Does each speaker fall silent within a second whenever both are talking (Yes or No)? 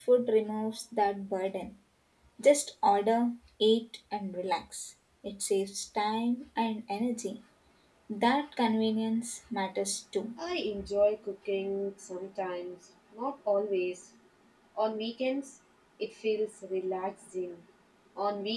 Yes